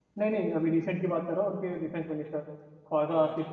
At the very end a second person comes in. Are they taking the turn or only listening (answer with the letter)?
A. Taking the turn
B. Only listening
A